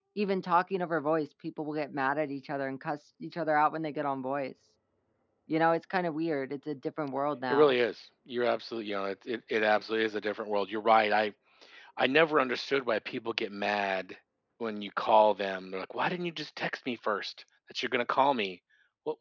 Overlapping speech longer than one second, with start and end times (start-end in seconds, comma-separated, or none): none